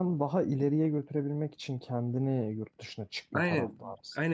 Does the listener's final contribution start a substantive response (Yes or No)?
Yes